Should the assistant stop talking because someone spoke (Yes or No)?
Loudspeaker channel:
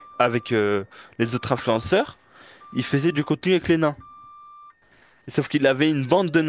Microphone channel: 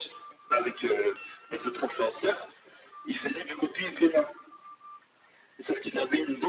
No